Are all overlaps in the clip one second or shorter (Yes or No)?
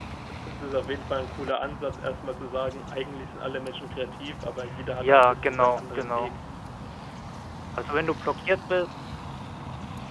No